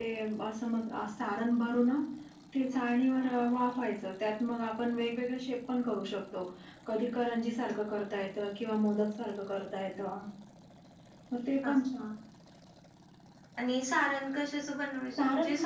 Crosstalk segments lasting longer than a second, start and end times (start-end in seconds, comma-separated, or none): none